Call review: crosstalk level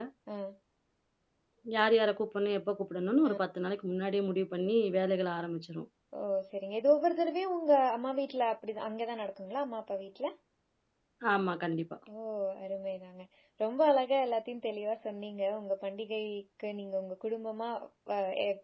none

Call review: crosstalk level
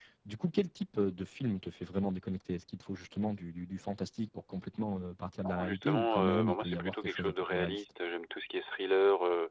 present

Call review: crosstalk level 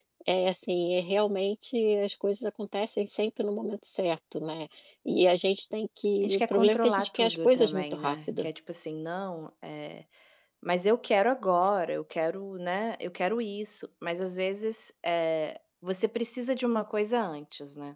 present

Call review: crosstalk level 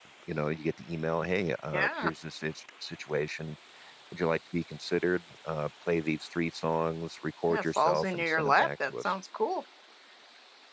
present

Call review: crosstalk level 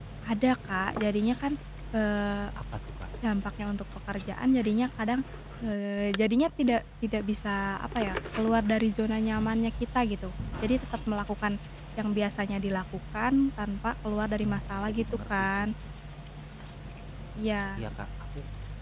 present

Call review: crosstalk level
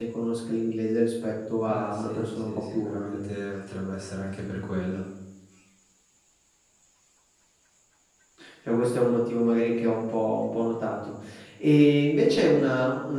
present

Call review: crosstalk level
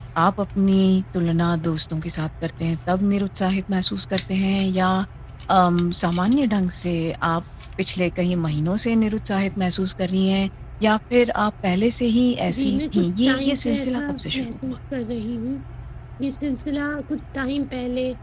present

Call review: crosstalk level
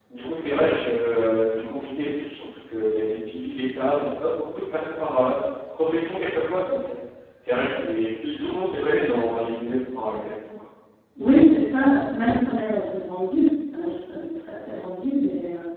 none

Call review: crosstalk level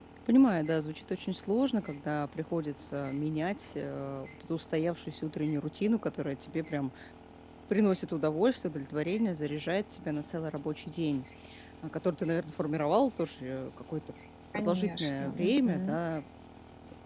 present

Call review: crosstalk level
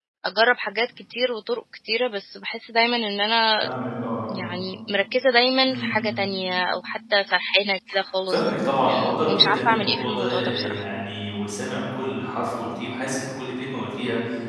present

